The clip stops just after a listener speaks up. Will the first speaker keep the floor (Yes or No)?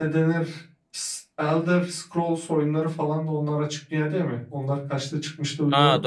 No